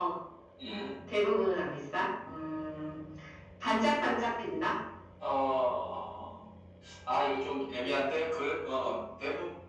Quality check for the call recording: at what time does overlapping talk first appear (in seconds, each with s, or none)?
none